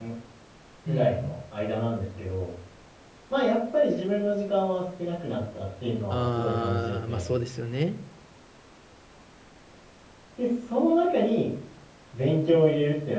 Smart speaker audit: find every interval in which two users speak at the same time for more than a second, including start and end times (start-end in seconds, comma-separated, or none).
6.1-7.3